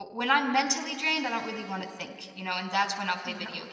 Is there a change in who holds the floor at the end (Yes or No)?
No